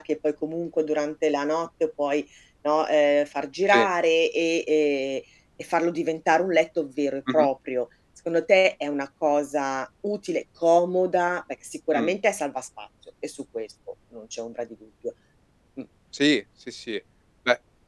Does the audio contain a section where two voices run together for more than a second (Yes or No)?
No